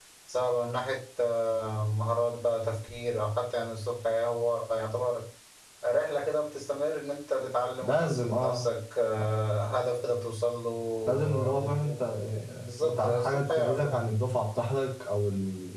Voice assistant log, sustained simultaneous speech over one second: present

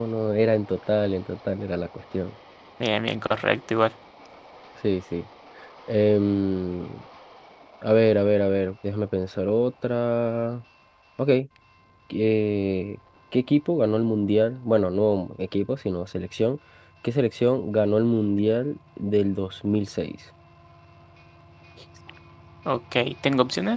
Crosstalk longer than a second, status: none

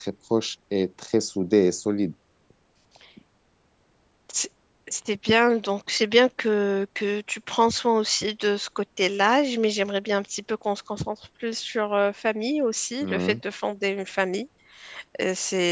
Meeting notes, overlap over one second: none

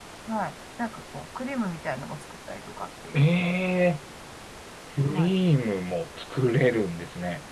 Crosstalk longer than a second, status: none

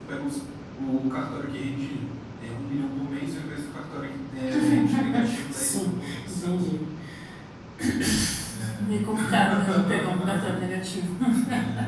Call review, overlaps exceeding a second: present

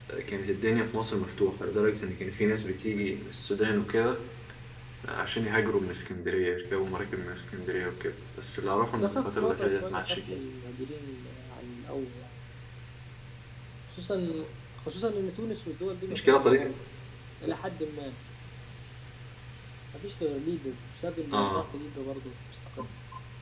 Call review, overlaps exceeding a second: present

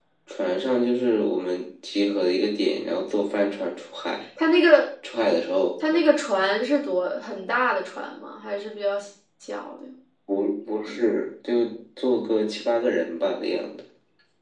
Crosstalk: none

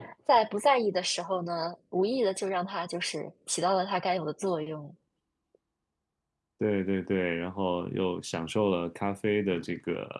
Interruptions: none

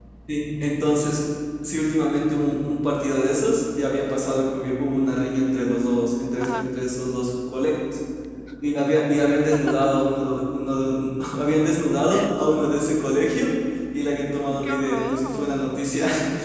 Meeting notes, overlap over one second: present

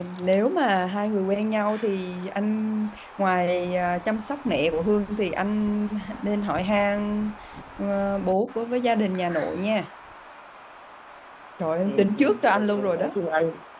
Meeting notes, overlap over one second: present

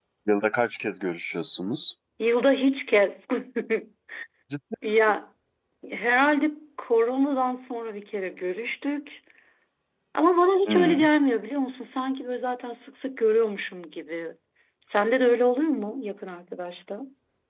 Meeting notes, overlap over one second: none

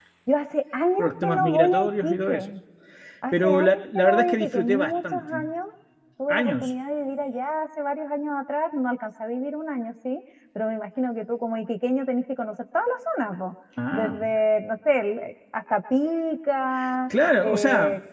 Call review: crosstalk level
present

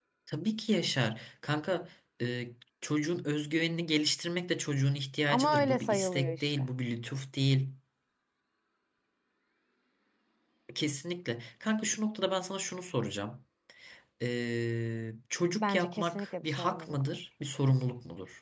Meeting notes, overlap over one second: present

